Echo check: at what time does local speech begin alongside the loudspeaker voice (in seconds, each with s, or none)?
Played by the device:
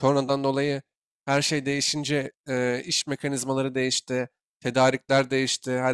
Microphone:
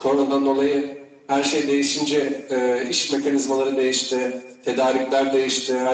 none